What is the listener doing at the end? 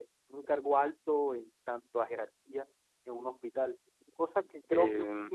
listening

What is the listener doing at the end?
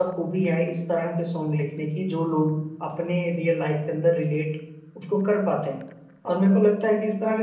listening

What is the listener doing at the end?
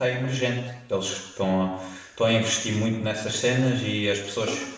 listening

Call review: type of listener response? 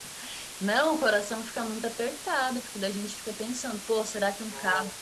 listening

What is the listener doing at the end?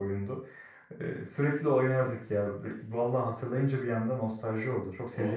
taking over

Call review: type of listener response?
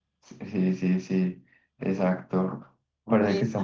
listening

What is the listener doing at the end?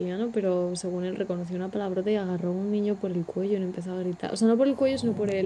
listening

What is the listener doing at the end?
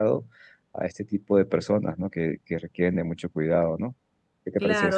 taking over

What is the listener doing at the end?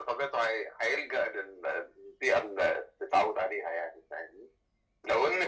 listening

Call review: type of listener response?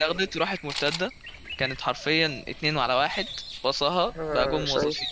taking over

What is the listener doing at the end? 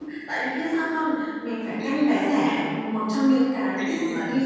listening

